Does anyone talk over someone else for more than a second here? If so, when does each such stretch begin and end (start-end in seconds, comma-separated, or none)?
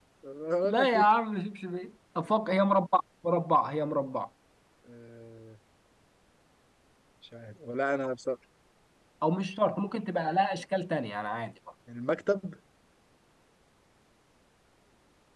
none